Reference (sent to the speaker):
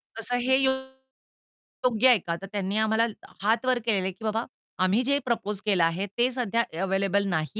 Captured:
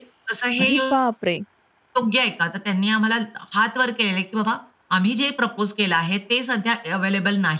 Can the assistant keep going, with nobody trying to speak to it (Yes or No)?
No